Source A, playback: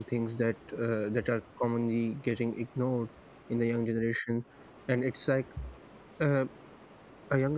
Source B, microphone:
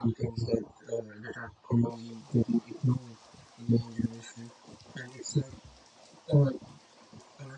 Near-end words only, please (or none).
none